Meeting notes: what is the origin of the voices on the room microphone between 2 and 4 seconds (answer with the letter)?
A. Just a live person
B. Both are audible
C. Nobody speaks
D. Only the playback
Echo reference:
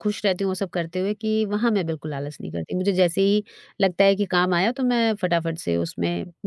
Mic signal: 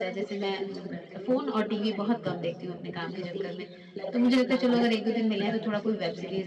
B